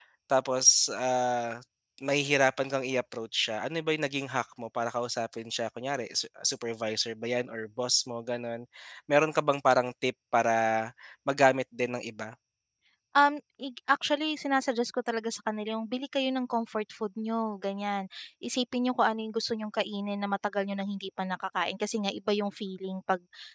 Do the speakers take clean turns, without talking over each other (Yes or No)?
Yes